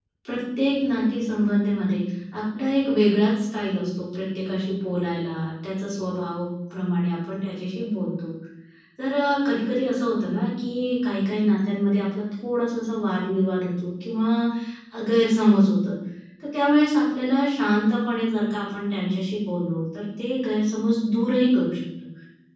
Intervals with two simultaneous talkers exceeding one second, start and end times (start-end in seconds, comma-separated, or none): none